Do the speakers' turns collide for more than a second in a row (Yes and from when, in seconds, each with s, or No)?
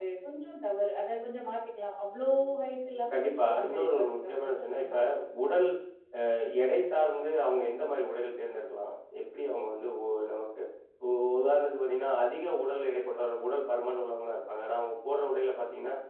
Yes, from 3.1 s